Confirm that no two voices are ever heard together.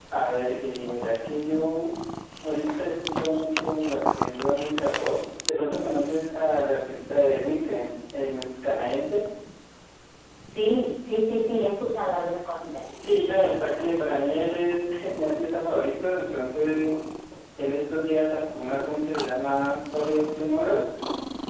Yes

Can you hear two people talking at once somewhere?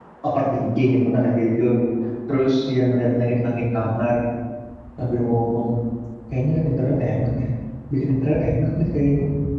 No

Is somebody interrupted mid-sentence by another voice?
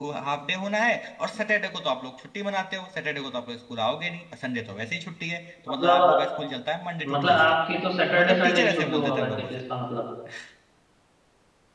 Yes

